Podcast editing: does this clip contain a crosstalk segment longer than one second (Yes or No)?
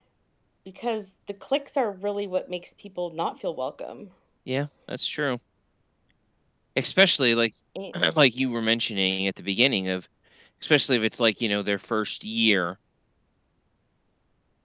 No